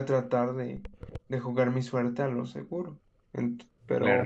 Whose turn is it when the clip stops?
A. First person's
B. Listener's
A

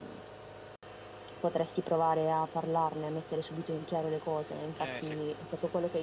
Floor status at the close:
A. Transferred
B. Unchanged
B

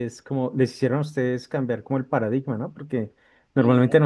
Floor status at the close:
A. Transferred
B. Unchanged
B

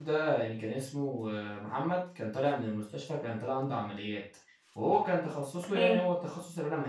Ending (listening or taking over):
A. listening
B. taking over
A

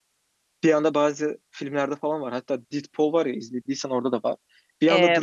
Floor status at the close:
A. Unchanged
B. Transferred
A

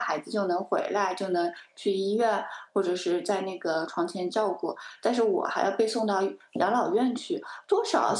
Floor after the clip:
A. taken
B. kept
B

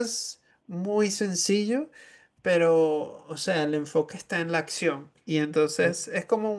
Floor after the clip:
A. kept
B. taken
A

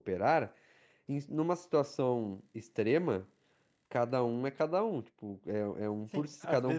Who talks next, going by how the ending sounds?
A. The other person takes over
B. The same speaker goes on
A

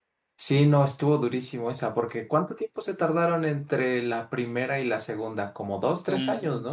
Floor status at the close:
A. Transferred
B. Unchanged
A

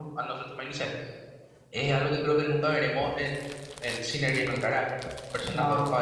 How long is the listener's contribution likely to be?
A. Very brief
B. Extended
A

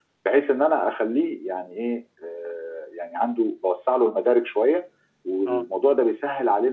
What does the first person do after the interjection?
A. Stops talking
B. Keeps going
B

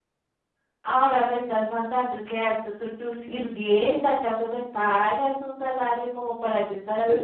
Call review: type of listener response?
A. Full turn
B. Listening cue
A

